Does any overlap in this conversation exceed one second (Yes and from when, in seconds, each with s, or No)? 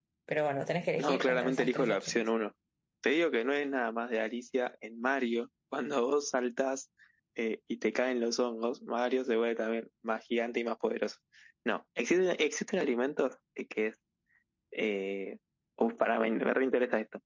Yes, from 1.0 s